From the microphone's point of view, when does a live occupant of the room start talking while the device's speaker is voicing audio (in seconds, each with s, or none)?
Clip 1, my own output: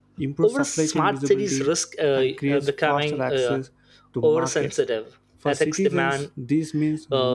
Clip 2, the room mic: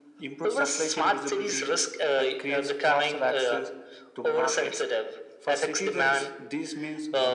none